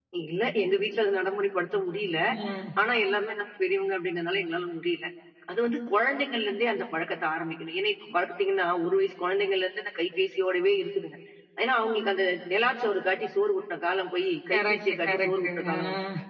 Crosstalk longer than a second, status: present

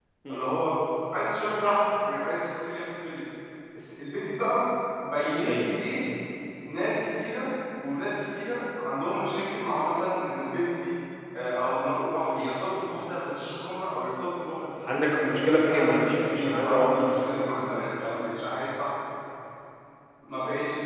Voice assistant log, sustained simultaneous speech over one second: present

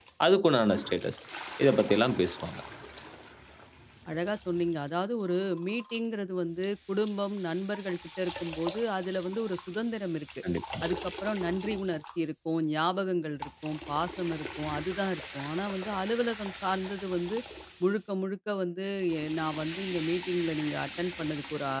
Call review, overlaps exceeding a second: none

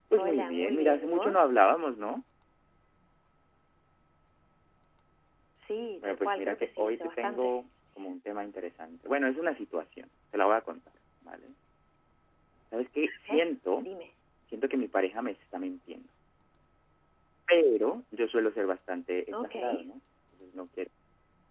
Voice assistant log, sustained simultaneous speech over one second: present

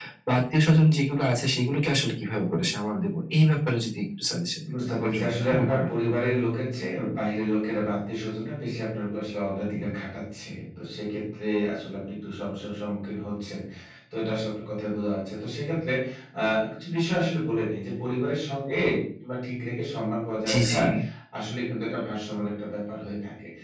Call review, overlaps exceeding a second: present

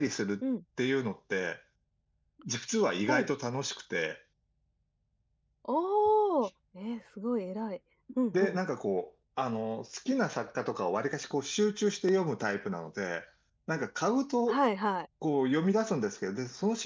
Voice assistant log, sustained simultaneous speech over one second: none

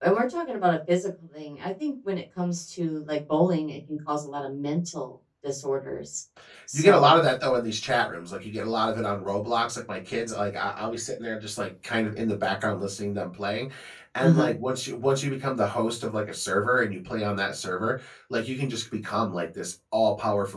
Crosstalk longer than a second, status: none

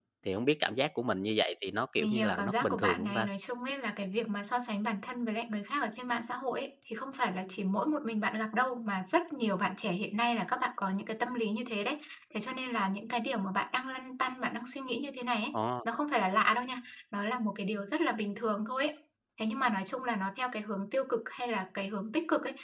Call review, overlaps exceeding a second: present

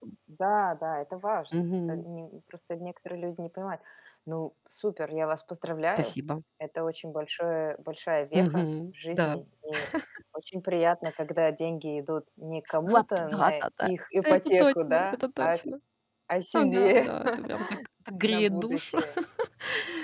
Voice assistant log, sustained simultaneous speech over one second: present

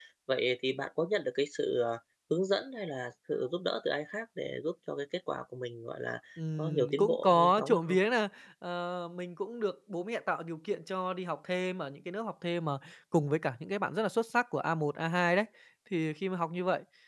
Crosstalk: present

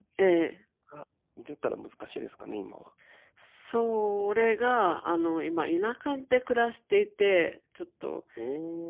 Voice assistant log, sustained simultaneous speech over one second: none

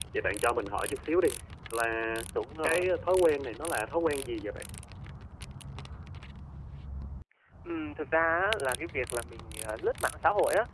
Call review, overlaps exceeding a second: none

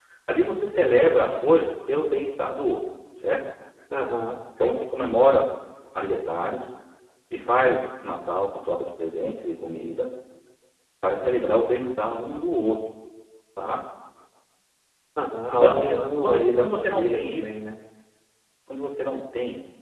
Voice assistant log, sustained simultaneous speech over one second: present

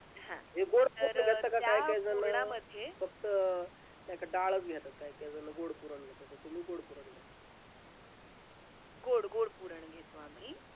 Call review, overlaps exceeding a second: present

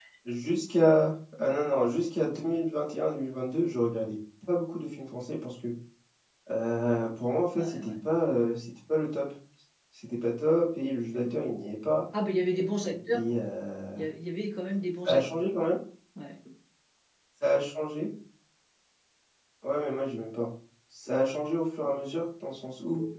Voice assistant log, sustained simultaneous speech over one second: none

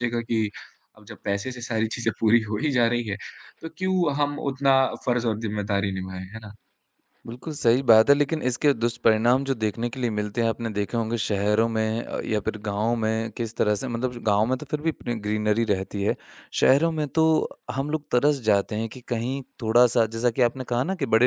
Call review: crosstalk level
none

